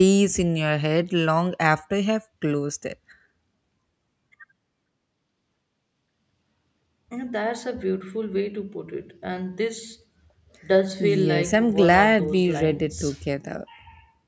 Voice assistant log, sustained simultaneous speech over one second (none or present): present